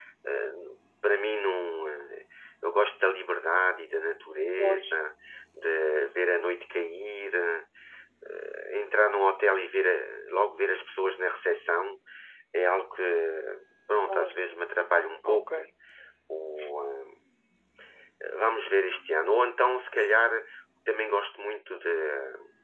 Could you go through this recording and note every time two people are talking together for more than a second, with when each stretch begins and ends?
none

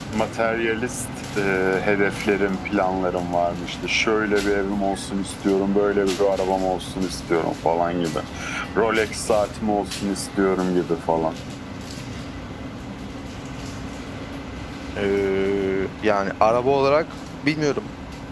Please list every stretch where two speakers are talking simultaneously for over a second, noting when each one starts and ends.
none

